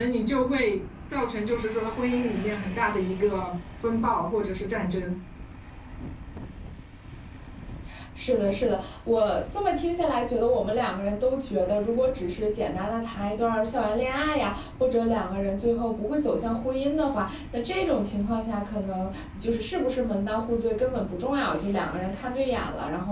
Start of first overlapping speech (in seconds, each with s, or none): none